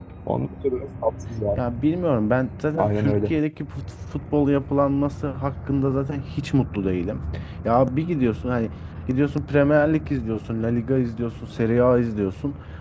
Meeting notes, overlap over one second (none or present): none